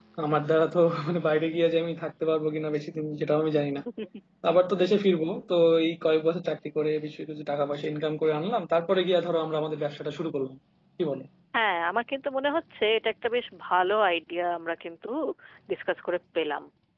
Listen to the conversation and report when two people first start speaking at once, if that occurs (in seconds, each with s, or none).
none